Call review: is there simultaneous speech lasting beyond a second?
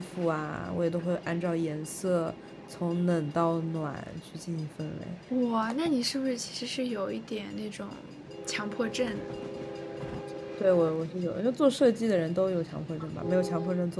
No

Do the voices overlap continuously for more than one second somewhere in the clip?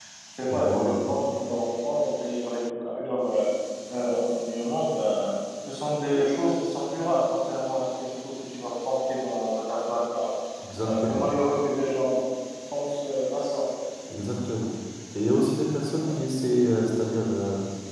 No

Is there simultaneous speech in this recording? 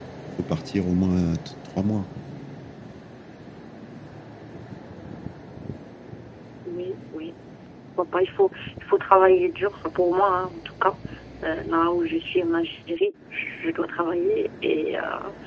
No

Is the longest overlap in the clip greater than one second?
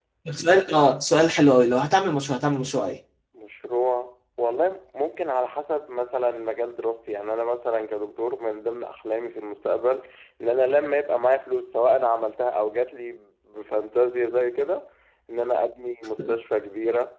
No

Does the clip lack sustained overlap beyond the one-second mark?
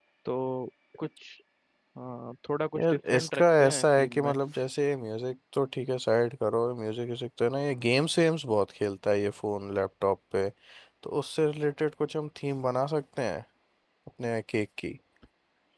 No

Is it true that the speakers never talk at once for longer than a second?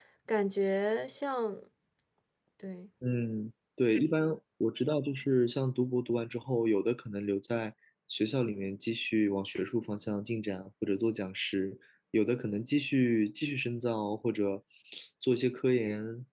Yes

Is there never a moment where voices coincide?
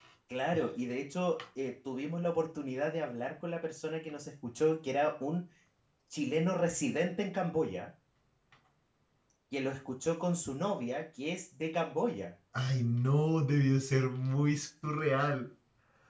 Yes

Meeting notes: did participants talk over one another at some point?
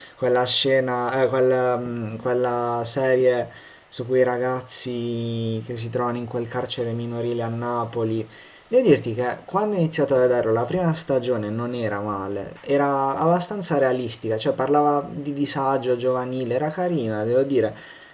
No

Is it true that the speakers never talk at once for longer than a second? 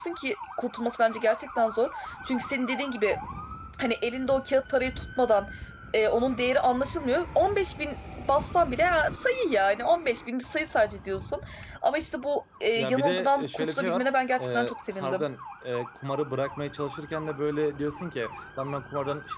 No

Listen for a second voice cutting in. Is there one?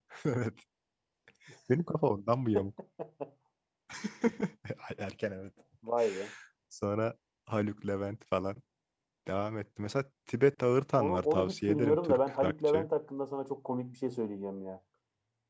Yes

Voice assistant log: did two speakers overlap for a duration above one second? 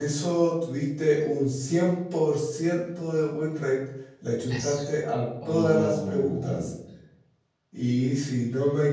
Yes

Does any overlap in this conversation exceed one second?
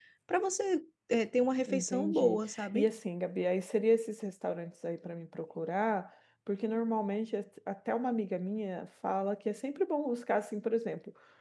Yes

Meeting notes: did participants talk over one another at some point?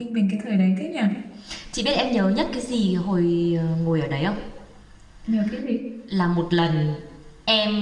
No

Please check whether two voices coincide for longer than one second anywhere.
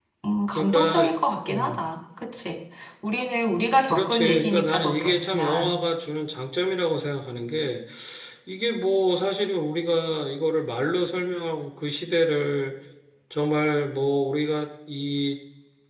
Yes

